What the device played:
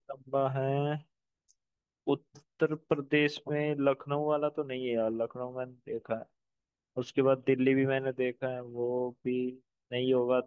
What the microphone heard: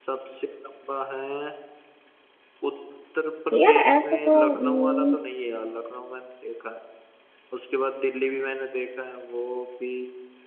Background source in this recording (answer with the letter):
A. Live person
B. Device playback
B